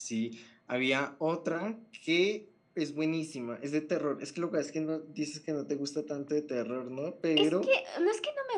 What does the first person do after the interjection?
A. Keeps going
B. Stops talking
B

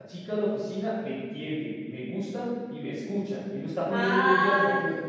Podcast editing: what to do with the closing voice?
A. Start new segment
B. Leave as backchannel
A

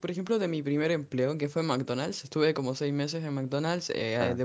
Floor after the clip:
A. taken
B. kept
B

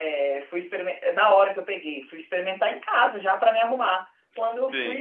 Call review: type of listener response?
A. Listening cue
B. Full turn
B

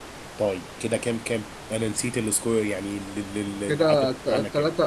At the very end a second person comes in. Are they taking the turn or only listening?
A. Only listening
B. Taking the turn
B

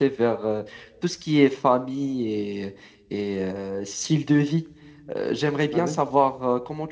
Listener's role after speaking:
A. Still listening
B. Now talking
A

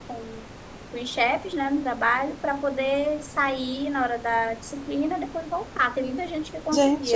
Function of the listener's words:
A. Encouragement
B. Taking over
B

